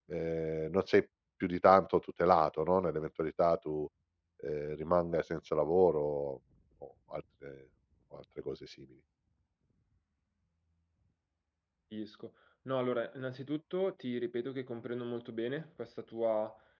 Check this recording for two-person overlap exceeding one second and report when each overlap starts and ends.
none

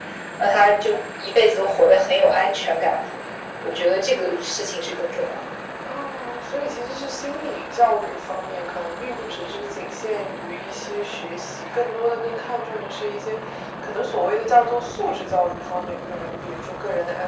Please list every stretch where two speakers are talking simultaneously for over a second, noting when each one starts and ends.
none

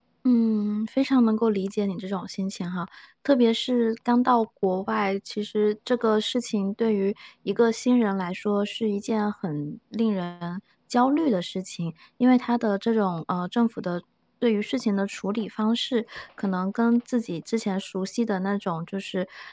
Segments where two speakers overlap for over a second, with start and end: none

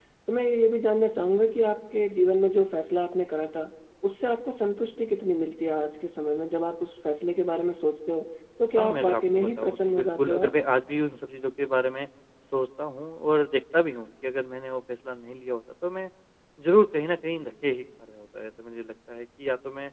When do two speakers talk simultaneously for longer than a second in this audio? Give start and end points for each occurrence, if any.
8.8-10.5

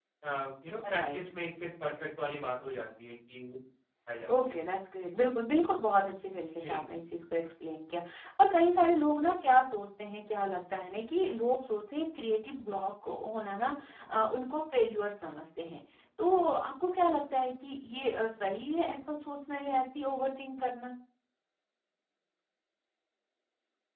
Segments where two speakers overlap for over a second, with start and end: none

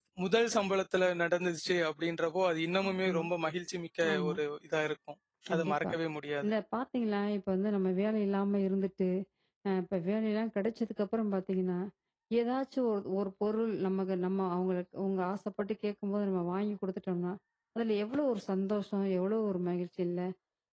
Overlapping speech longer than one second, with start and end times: none

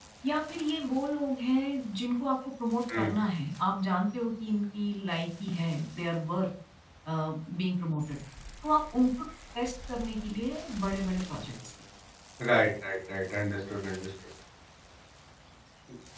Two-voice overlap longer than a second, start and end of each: none

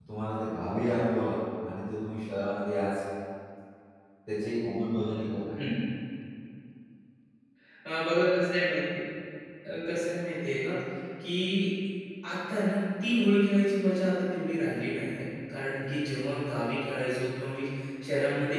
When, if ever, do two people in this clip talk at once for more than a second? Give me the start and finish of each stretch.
none

